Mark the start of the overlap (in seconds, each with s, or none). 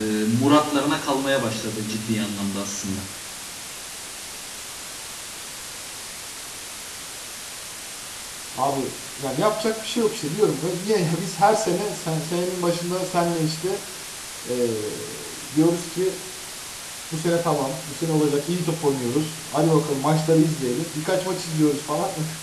none